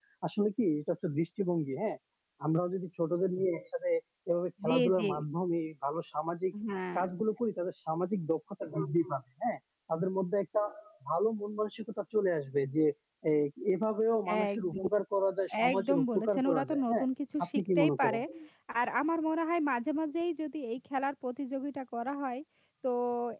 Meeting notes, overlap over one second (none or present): present